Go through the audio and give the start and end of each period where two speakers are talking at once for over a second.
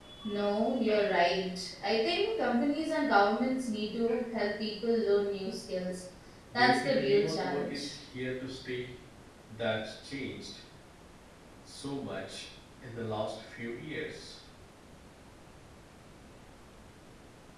6.5-7.9

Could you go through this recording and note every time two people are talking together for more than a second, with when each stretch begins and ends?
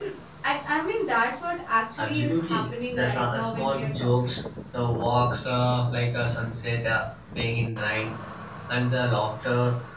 2.0-4.4

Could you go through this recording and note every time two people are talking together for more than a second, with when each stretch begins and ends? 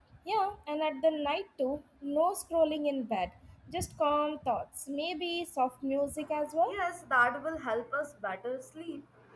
none

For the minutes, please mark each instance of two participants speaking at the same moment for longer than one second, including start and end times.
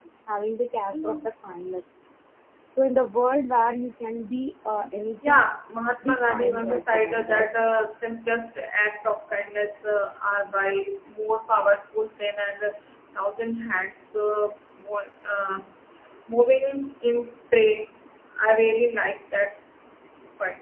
6.1-7.5

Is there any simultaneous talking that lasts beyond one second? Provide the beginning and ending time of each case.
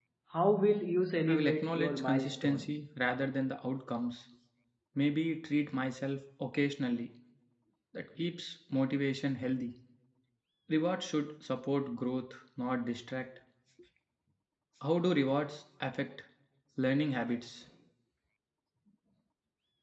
1.3-2.8

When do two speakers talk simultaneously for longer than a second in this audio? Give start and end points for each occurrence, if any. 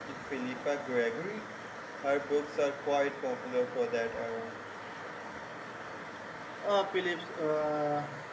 none

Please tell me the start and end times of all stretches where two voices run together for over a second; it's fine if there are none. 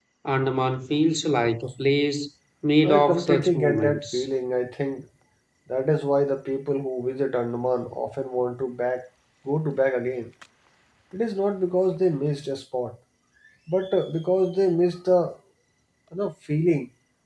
2.9-4.3

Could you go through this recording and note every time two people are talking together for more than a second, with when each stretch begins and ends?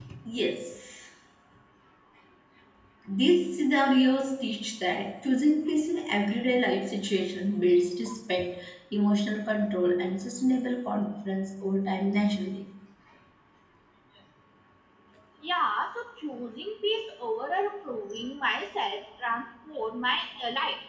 none

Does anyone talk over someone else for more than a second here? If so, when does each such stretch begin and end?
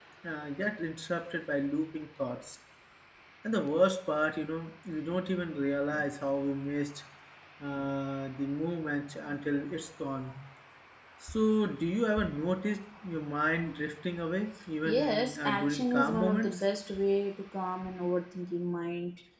14.8-16.6

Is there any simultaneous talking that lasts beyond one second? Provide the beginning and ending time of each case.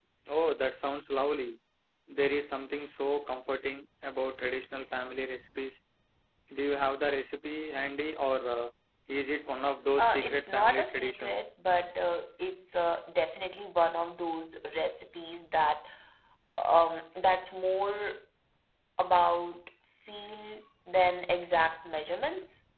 10.0-11.4

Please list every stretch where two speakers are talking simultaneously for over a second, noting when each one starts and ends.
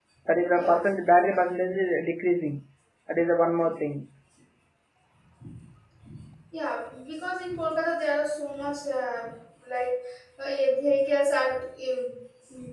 none

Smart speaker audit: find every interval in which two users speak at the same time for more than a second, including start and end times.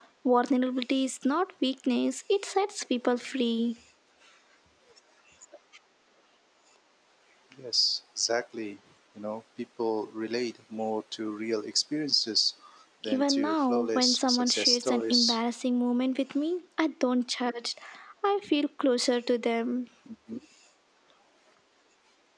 13.0-15.4

